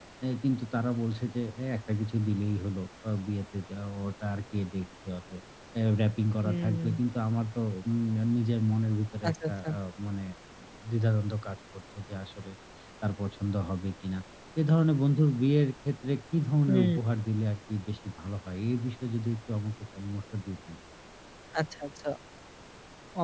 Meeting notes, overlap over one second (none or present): none